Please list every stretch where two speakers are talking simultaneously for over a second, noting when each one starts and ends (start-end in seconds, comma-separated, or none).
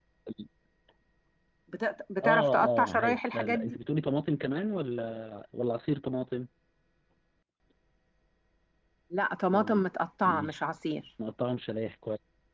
2.2-3.8